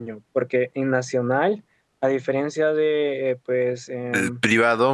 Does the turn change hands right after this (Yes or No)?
Yes